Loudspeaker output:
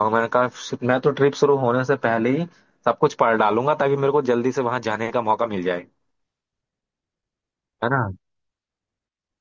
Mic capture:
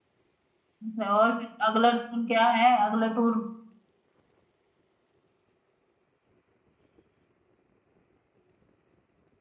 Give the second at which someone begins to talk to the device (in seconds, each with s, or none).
0.8 s